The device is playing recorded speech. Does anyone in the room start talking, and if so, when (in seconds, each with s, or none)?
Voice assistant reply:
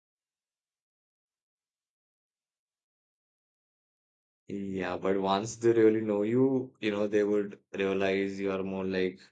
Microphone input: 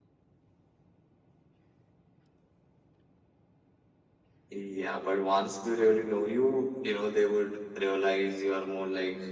none